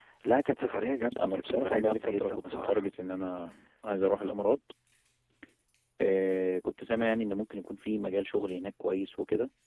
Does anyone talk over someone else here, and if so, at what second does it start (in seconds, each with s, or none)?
1.1 s